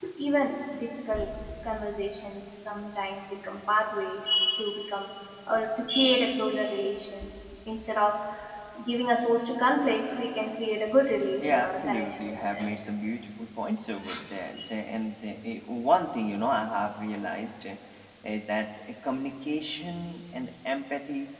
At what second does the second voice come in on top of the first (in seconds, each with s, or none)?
11.4 s